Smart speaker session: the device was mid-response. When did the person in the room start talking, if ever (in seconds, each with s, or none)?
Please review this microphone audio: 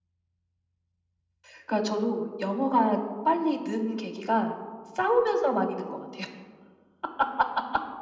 none